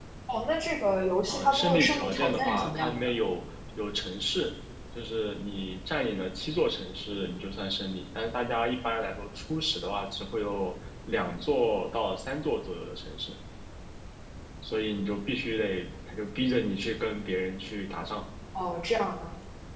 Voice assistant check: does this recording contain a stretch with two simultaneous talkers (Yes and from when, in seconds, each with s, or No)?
Yes, from 1.3 s